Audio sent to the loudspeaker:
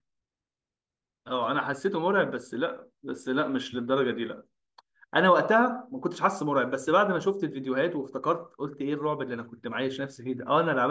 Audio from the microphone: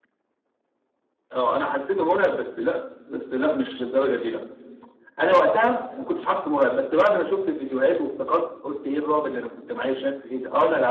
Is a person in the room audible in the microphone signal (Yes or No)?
No